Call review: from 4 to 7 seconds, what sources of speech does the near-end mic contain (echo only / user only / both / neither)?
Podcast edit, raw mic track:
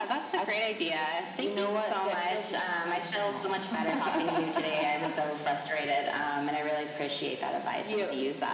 echo only